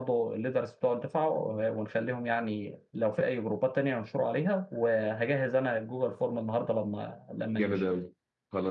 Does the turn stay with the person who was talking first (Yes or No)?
No